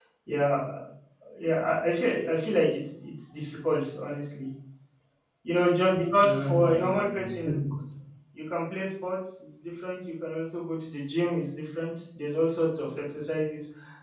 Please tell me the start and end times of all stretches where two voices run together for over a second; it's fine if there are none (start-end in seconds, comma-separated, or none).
6.2-7.6